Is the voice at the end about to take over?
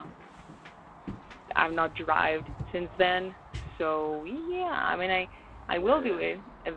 No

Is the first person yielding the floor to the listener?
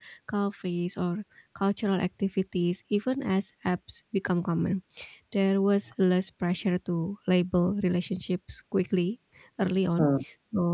No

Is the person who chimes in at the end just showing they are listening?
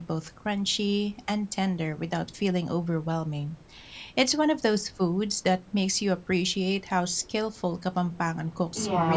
No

